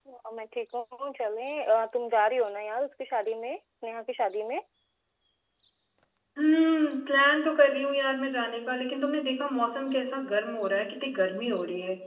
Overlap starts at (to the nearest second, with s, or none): none